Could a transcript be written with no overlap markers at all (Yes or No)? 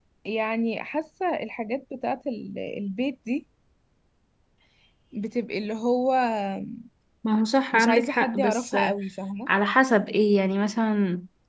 No